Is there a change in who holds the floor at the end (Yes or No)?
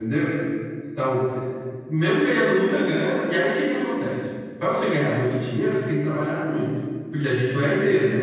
No